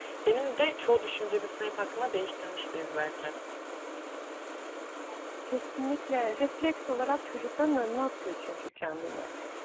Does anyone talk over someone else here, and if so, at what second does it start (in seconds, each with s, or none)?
none